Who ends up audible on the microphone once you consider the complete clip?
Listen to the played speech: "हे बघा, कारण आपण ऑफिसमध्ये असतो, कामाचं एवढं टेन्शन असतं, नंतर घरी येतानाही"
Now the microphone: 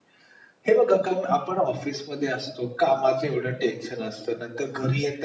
echo only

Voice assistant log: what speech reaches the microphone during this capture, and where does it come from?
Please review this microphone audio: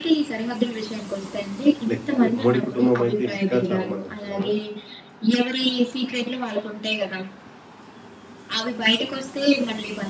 both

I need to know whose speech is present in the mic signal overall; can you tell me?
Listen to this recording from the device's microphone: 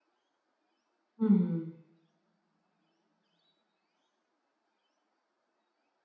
user only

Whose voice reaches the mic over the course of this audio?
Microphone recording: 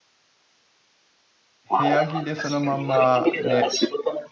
both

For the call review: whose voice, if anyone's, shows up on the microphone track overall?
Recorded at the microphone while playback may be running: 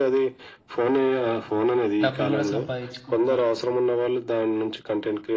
both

